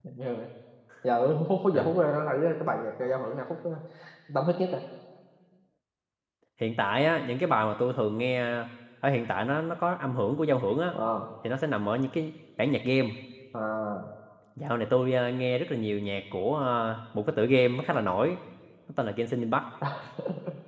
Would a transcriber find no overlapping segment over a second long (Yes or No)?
Yes